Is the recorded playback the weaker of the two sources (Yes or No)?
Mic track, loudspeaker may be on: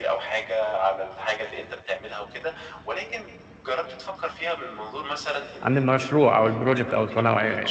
Yes